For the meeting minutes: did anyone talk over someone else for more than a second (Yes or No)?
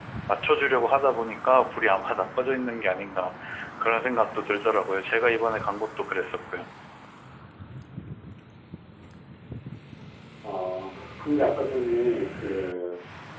No